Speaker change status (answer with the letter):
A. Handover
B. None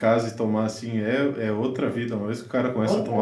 B